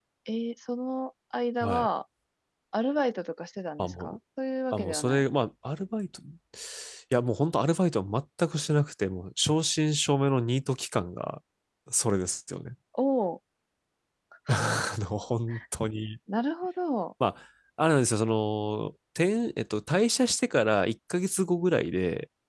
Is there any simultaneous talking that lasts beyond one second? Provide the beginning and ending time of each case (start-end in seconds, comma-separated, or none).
none